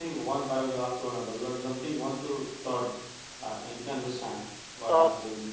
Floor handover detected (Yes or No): Yes